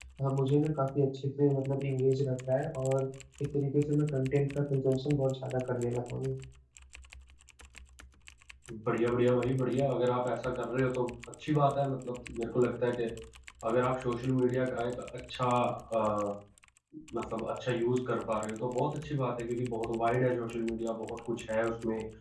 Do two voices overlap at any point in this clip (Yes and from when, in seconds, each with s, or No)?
No